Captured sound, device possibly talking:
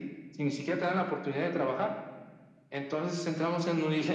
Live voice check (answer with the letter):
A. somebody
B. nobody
B